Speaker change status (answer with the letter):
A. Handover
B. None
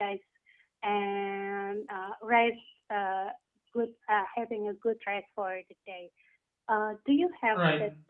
B